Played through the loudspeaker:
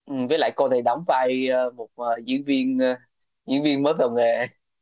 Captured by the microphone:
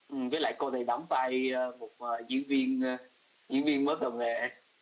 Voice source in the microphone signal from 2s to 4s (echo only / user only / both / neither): echo only